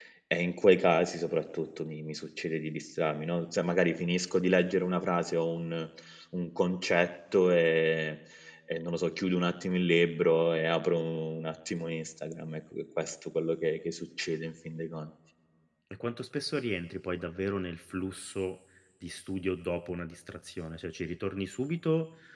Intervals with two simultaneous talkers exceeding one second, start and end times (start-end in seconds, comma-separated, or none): none